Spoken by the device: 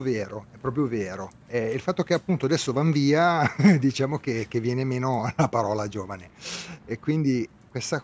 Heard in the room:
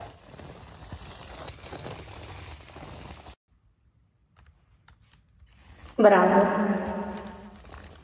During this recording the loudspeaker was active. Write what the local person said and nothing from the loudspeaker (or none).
Bravo.